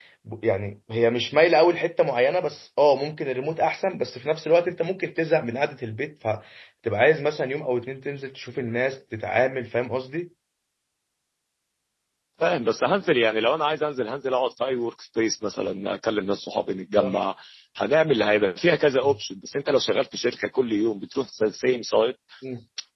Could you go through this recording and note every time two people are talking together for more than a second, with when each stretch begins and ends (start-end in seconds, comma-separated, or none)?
none